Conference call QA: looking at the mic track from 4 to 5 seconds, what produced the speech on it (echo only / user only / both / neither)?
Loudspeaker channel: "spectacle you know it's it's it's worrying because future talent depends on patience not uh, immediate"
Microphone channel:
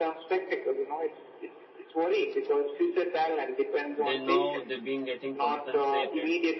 both